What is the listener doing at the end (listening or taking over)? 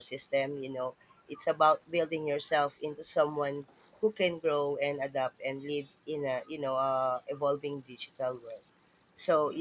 listening